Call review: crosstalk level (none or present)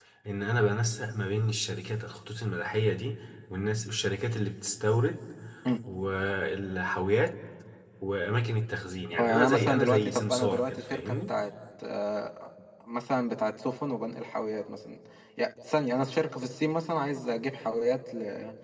present